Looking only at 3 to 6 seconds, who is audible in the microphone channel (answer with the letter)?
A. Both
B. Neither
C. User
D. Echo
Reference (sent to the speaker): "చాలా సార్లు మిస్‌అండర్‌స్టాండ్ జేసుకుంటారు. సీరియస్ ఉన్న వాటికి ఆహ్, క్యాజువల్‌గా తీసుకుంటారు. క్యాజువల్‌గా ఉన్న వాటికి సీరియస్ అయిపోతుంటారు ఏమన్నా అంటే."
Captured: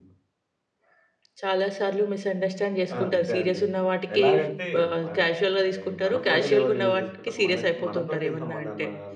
A